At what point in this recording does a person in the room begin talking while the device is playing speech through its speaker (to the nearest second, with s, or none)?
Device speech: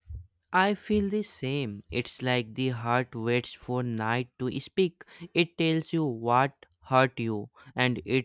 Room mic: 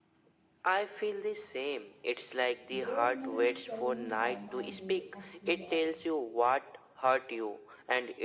3 s